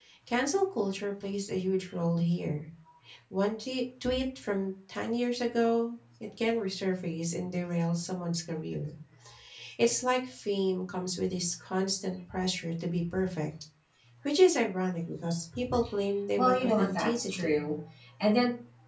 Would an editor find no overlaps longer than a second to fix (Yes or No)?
No